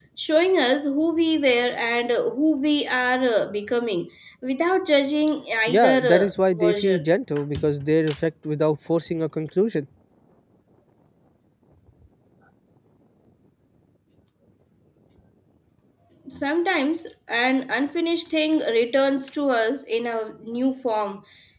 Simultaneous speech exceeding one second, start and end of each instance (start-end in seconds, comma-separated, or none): 5.7-7.0